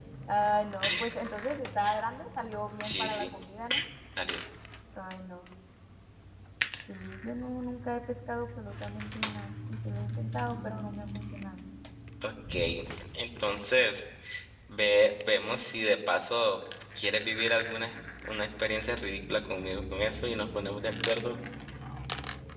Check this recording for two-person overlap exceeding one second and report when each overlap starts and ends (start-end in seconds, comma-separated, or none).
none